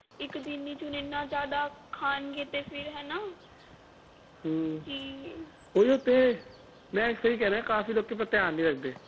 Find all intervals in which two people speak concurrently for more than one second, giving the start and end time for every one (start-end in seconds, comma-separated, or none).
none